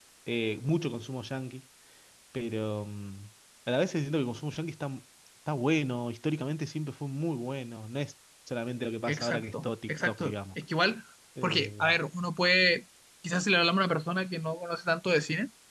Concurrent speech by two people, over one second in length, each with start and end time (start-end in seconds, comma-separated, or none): 9.1-10.3